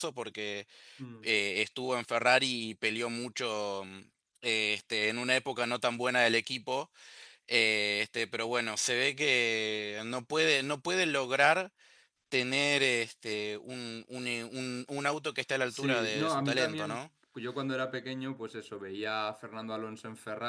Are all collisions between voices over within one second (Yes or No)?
No